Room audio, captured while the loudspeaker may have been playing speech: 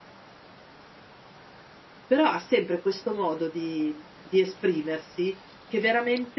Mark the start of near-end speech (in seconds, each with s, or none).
2.0 s